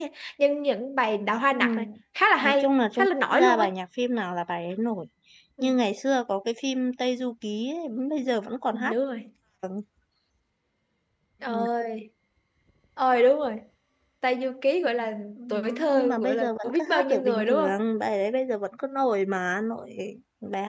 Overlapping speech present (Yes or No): Yes